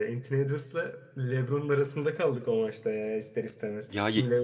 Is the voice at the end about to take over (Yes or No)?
No